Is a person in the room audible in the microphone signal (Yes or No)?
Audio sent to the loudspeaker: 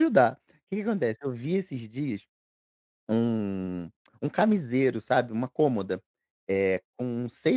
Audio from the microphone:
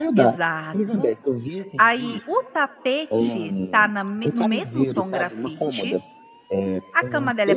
Yes